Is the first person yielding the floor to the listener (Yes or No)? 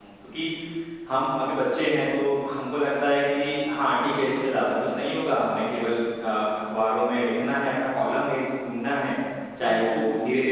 No